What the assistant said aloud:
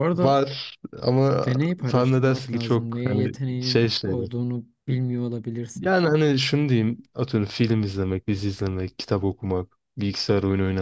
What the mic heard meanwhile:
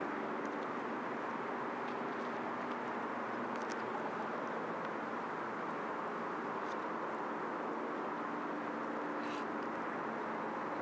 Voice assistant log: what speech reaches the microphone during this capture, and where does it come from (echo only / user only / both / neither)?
neither